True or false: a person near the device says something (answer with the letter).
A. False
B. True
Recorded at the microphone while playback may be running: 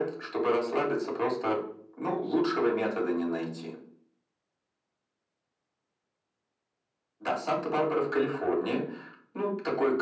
A